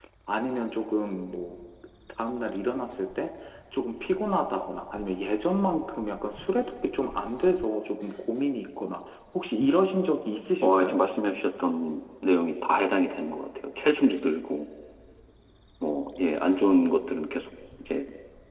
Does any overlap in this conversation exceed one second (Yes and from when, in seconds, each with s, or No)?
No